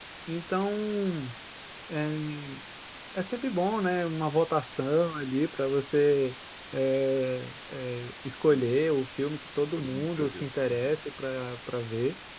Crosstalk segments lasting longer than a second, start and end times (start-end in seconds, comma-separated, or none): 9.8-11.0